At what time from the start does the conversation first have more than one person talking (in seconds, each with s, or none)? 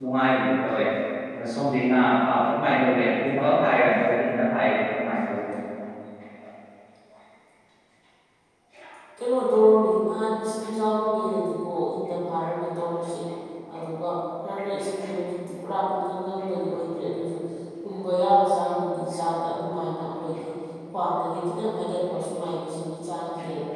none